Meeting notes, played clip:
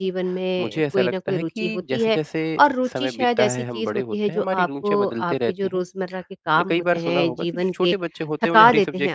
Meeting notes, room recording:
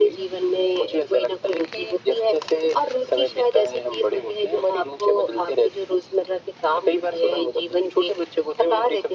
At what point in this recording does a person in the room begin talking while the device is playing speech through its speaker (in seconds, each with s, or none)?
none